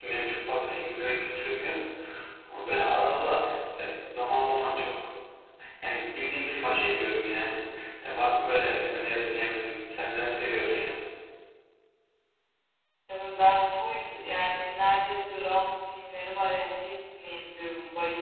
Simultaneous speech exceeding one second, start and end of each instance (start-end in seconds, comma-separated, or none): none